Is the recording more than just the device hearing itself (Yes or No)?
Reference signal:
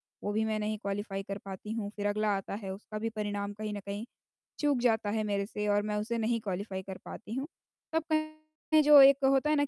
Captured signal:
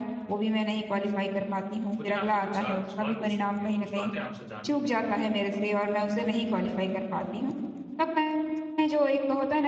Yes